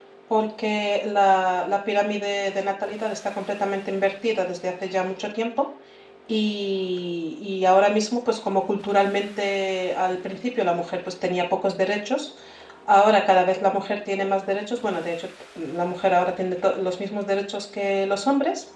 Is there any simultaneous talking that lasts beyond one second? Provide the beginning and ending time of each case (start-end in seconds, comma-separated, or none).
none